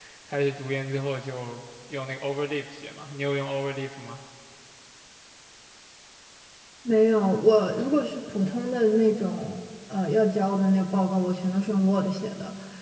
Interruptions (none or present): none